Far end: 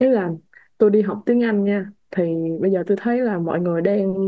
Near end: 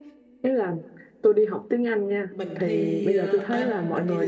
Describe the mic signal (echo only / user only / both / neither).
both